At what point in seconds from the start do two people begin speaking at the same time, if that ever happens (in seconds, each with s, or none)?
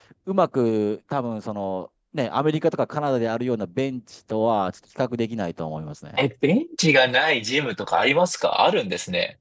none